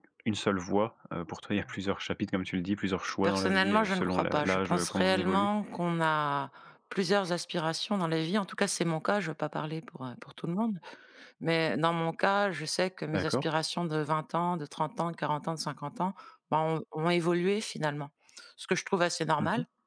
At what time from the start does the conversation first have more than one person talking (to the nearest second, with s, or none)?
3 s